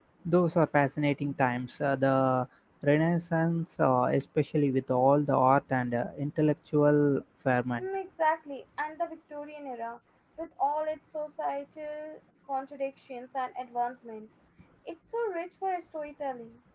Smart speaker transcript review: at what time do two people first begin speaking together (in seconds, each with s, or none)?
none